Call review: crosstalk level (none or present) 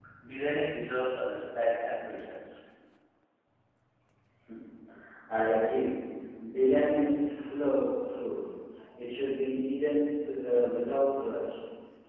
none